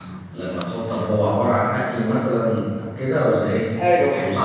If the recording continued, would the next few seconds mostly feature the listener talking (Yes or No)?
Yes